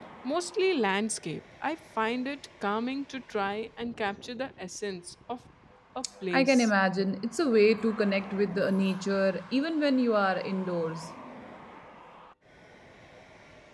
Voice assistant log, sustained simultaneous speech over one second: none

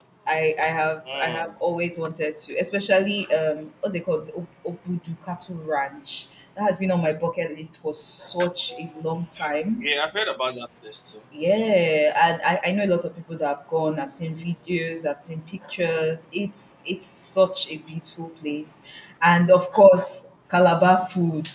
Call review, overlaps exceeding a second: none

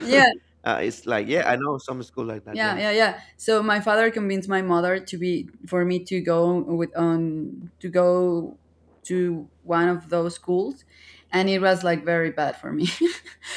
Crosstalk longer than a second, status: none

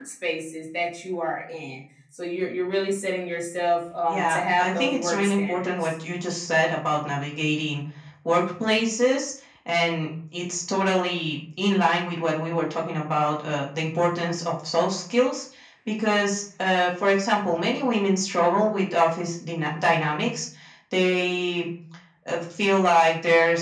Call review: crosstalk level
present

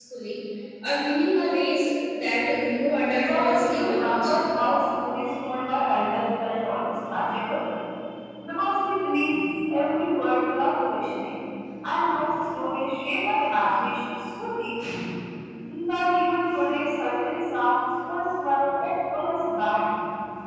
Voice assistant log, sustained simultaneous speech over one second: present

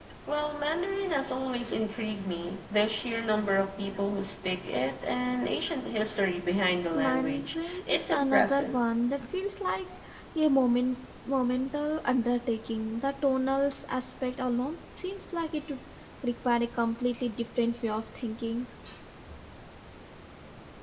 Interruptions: present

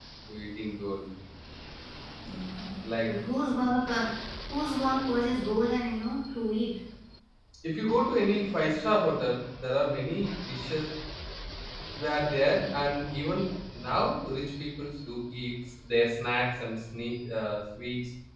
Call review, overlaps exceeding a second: none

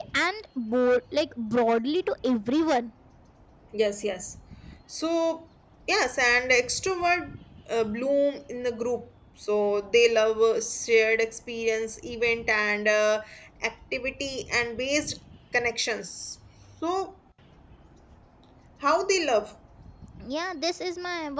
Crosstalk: none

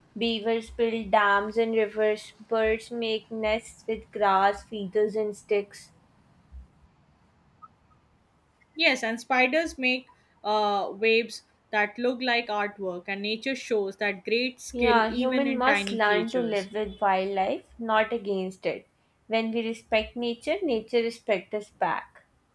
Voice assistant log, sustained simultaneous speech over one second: present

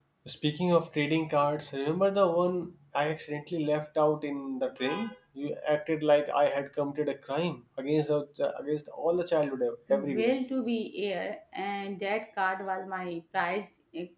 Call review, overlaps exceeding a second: none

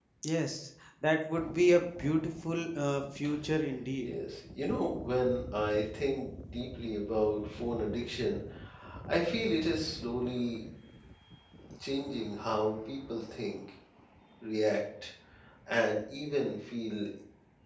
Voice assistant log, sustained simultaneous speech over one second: none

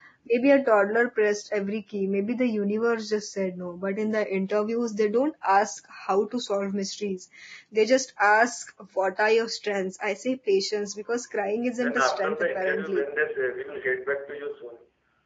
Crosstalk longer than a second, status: present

